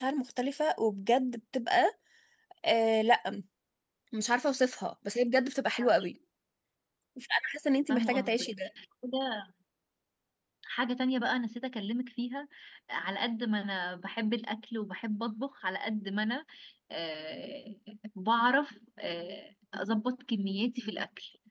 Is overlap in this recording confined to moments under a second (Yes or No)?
Yes